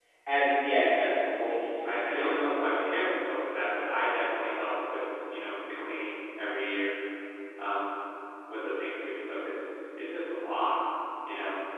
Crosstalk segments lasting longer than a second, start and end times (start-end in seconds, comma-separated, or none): 1.3-3.1